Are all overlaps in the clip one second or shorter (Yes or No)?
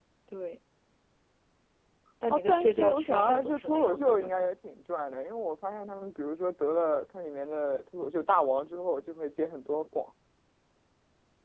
No